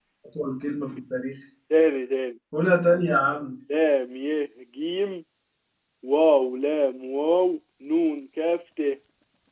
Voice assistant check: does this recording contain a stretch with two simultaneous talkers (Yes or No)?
No